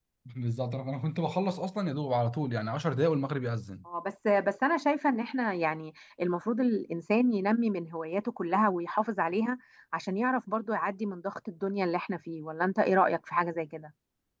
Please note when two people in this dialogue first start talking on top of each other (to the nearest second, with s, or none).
none